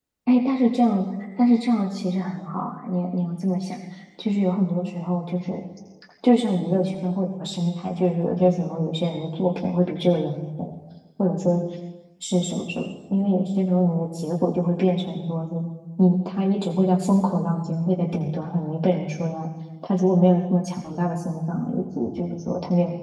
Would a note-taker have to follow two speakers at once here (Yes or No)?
No